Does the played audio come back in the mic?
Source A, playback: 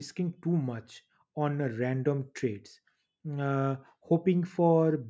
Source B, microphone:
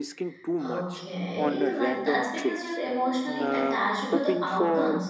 Yes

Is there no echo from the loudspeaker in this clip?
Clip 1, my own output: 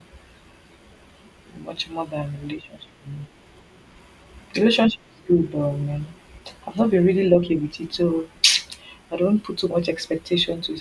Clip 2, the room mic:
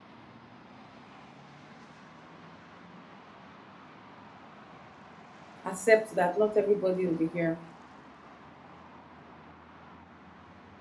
Yes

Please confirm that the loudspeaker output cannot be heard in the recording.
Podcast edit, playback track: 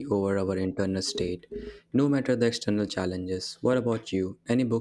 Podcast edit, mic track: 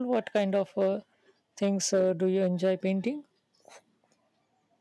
Yes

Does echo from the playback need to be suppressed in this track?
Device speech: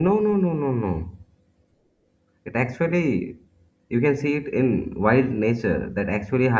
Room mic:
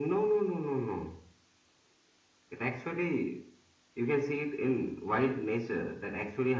Yes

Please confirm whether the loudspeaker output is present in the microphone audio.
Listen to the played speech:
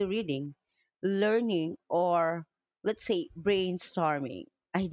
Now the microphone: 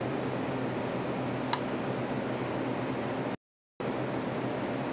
No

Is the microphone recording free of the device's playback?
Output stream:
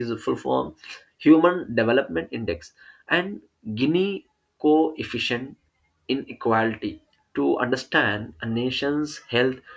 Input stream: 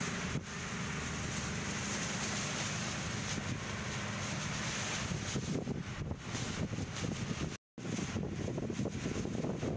Yes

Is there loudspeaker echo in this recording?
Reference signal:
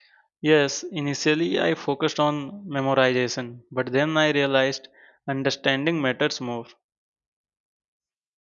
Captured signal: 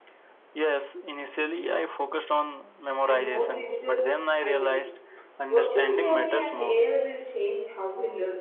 Yes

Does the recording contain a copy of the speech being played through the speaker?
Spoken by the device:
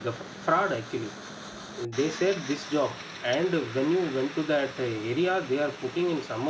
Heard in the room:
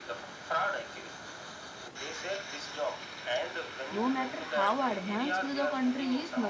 Yes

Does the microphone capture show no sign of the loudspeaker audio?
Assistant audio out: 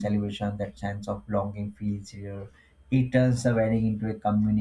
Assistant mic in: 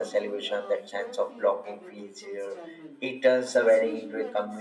No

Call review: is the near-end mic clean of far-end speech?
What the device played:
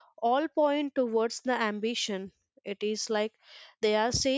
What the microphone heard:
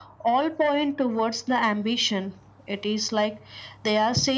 No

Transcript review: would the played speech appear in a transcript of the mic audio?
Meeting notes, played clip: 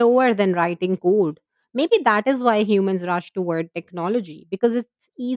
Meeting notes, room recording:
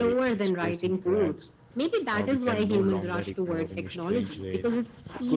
Yes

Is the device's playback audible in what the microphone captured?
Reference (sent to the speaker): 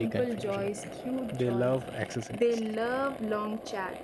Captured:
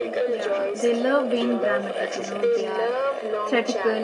Yes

